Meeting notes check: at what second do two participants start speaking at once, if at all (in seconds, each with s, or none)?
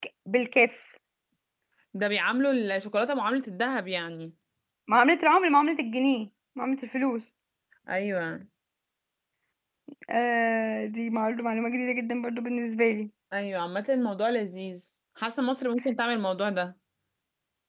none